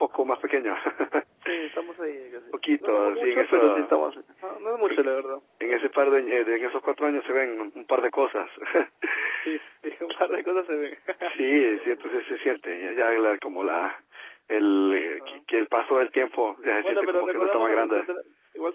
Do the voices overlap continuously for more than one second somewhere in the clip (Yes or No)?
Yes